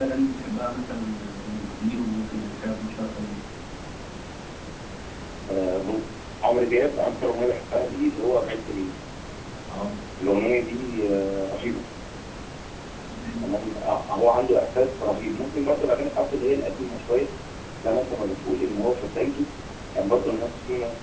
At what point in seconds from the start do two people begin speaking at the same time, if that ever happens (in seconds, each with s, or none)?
none